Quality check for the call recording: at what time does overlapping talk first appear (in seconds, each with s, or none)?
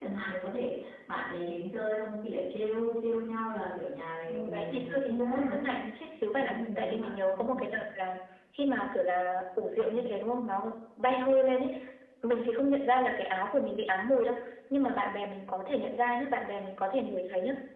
4.3 s